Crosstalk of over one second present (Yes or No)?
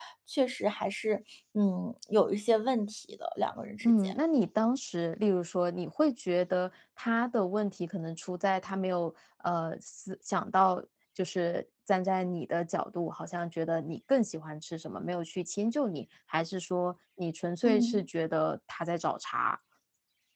No